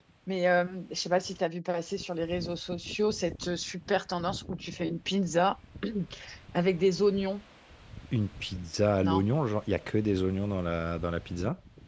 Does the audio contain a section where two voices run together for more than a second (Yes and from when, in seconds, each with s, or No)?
No